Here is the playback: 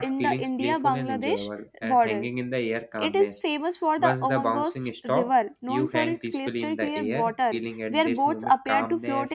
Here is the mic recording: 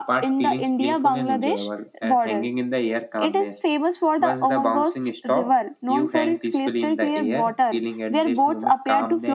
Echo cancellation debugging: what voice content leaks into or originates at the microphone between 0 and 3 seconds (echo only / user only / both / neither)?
echo only